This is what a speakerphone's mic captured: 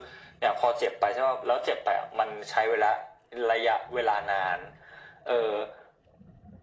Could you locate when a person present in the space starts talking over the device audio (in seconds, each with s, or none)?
none